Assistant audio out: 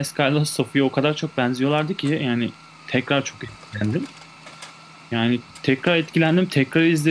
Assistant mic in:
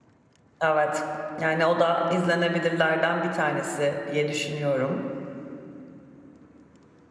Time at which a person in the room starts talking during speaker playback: 0.6 s

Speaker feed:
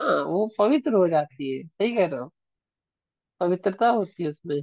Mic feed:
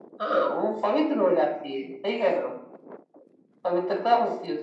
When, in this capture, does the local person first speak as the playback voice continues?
none

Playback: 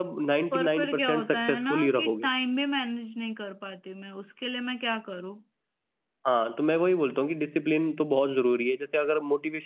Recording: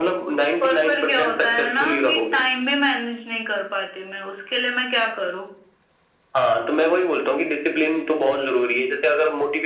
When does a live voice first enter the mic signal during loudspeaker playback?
none

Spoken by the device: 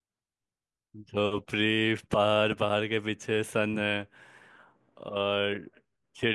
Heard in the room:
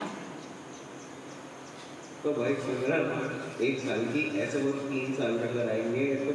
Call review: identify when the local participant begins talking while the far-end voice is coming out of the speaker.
2.2 s

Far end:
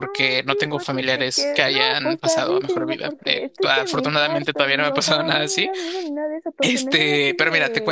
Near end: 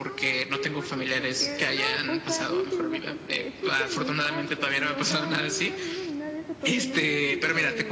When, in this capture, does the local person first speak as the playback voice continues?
none

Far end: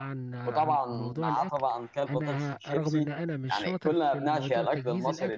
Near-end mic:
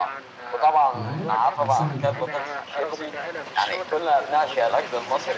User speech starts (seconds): 0.9 s

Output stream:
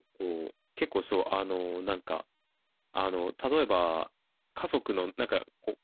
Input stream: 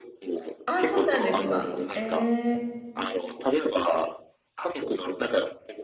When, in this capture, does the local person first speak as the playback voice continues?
0.7 s

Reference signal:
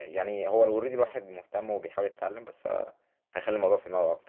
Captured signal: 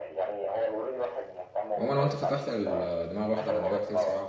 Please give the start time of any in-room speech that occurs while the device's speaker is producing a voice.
1.8 s

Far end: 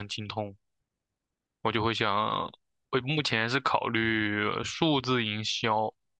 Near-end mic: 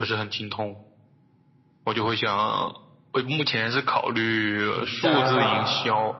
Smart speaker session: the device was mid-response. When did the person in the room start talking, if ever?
4.7 s

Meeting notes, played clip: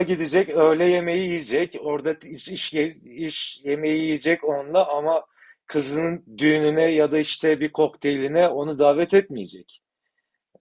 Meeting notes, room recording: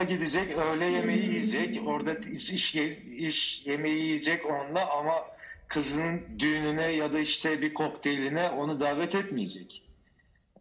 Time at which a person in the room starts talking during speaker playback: 0.9 s

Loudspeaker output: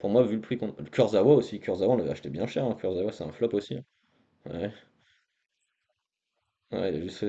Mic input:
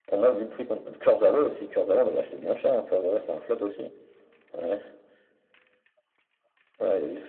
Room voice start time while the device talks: none

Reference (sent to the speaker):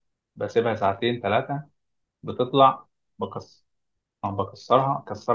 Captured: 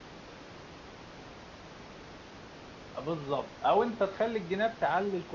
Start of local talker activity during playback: 3.0 s

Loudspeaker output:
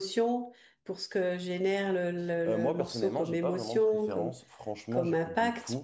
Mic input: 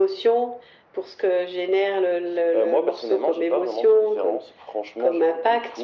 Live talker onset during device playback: none

